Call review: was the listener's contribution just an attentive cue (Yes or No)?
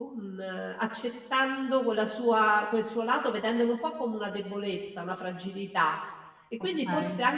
Yes